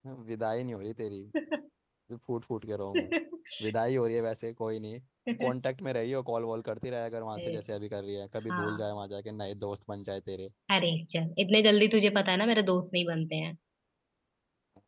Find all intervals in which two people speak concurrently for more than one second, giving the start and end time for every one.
none

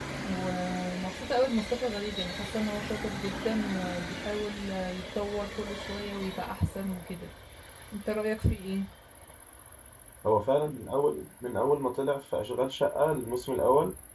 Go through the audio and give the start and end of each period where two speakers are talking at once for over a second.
none

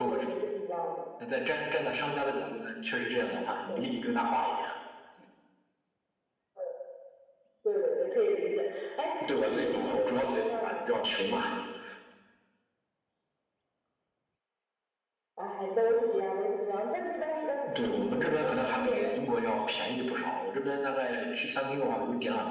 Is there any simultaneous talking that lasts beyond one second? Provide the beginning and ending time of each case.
9.4-10.7, 17.7-19.1

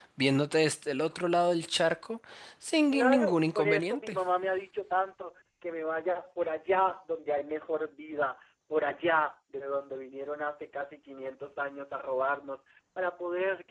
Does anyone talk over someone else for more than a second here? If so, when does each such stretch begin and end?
2.9-4.2

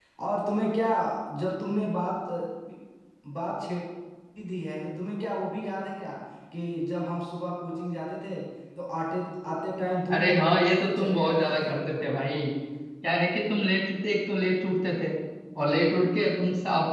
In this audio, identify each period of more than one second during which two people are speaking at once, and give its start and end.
10.1-11.7

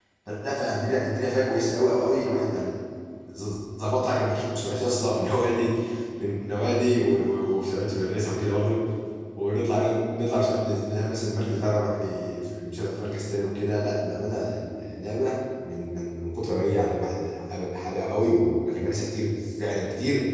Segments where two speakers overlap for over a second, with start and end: none

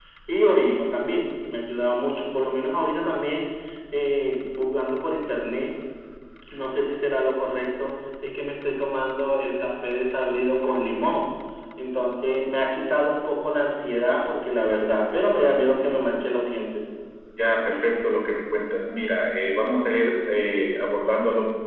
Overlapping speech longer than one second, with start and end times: none

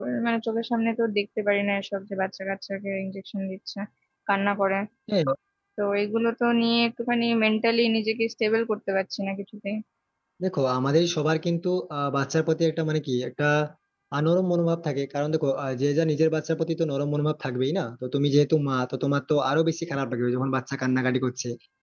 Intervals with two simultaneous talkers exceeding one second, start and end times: none

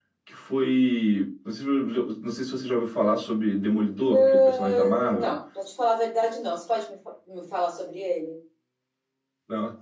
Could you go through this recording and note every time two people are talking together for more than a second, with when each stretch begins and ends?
4.1-5.4

